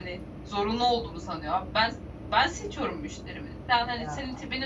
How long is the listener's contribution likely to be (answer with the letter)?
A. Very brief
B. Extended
A